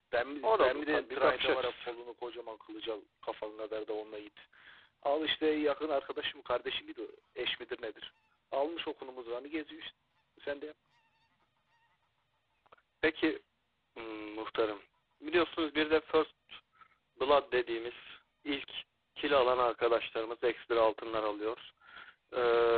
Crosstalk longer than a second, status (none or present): present